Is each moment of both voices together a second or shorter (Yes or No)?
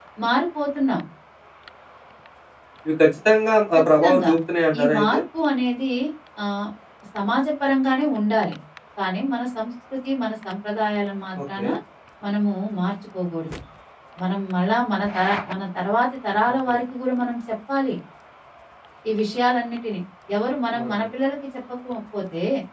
Yes